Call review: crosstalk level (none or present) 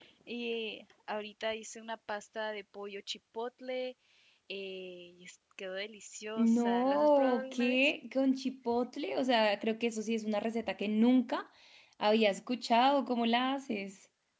present